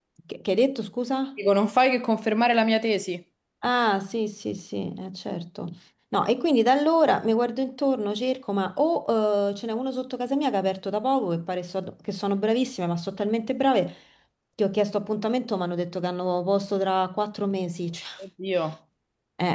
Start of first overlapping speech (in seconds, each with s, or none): none